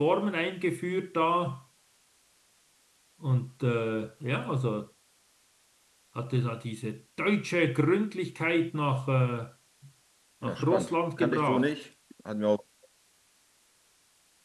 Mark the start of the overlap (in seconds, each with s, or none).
10.4 s